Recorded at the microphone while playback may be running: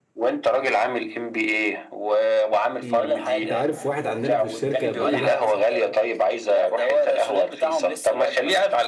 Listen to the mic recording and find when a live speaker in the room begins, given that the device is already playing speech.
2.8 s

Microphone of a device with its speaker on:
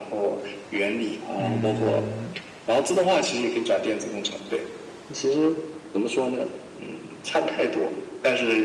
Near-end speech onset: 1.4 s

